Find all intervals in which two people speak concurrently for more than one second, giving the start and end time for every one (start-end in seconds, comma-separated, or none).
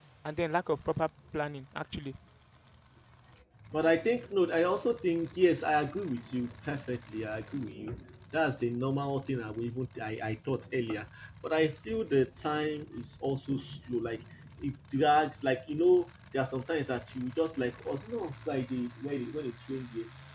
none